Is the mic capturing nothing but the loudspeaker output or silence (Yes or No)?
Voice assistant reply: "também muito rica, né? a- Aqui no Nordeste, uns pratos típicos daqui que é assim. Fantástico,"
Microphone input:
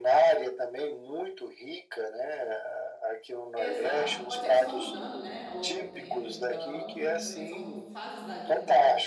No